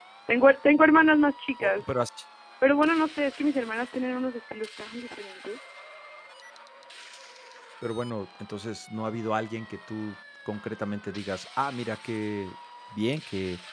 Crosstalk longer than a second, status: none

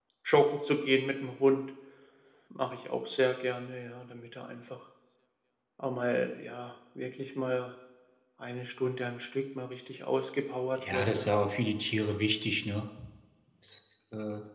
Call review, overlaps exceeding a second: none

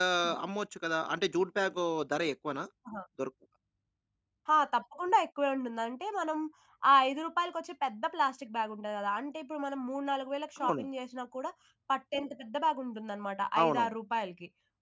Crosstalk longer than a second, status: none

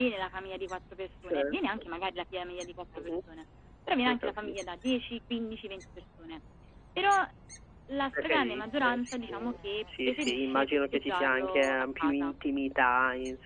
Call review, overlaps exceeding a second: present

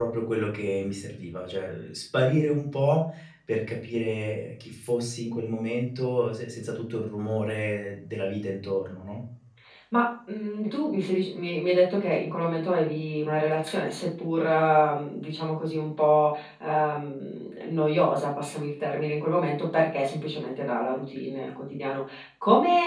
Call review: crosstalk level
none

